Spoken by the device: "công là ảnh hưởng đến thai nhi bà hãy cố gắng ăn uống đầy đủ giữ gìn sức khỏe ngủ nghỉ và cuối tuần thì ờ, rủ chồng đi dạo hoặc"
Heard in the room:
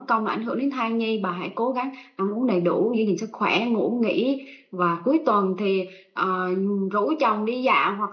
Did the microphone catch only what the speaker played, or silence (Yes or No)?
Yes